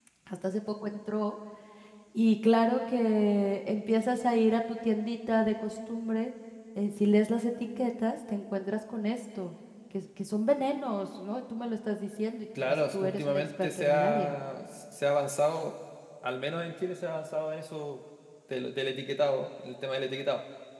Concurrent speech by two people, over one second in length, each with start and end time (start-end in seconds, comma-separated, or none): 12.6-14.3